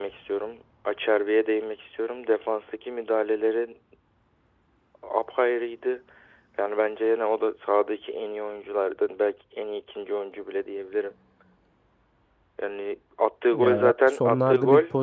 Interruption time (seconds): 14 s

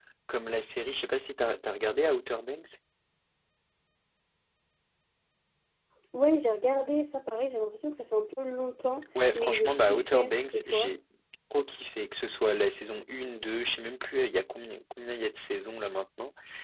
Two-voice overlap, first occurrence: 9 s

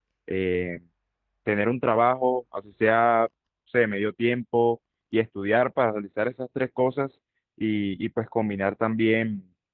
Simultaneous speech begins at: none

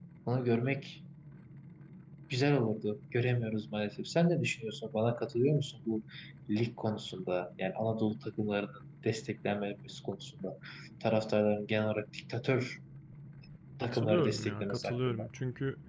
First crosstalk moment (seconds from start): 14 s

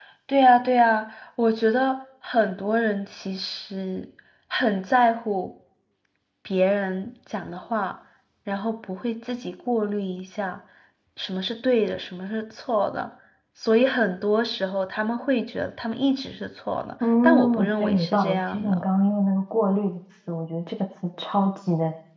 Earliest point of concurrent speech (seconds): 17 s

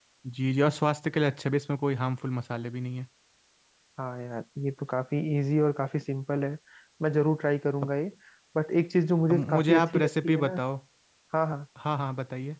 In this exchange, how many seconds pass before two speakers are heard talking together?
9 s

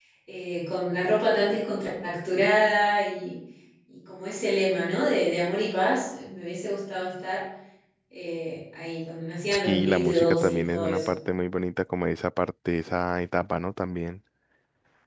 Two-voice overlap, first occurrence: 10 s

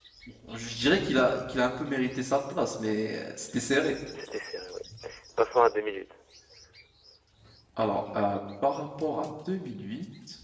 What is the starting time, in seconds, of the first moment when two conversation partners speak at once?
none

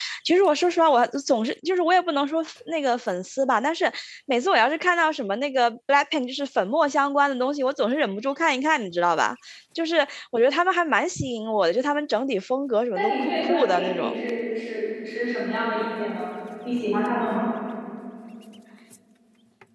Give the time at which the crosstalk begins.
13 s

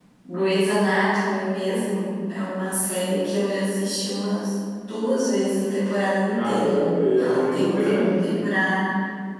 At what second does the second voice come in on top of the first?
6 s

